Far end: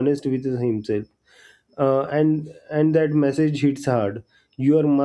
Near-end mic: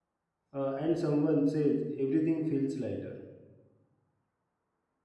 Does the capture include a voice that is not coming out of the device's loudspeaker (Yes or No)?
Yes